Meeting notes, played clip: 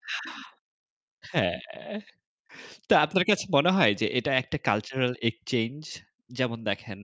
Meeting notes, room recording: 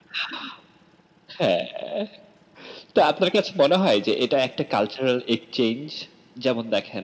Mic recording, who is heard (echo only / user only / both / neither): echo only